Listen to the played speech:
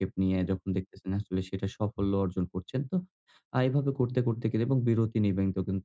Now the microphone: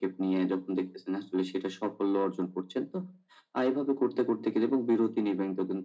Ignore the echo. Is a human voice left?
No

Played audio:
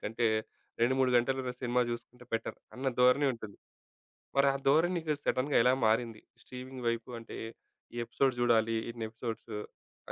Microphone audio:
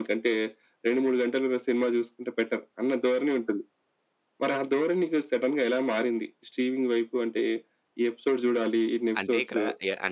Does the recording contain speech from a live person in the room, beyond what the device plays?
Yes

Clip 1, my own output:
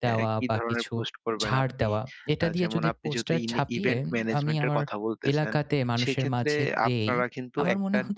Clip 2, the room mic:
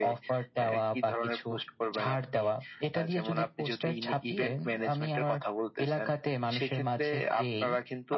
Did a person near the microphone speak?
No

